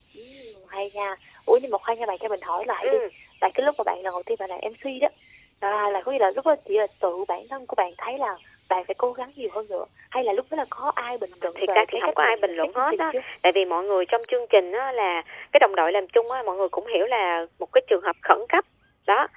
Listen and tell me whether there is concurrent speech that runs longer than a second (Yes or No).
Yes